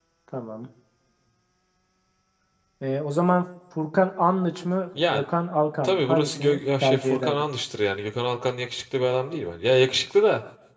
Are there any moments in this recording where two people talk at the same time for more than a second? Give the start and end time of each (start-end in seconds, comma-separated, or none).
5.8-7.4